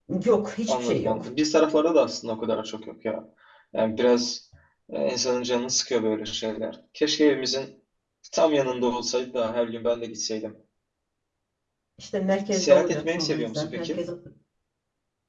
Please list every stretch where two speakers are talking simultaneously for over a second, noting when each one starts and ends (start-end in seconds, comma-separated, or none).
12.5-14.0